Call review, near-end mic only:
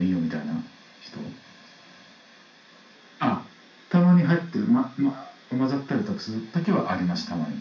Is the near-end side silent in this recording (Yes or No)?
Yes